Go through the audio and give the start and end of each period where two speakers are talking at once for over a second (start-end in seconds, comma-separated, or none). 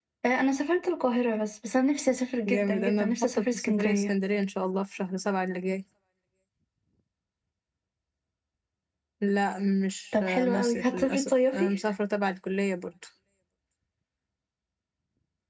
2.5-4.1, 10.1-11.8